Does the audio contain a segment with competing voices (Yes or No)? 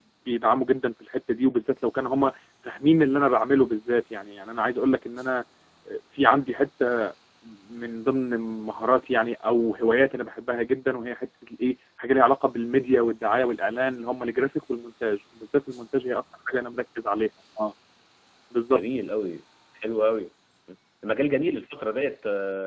No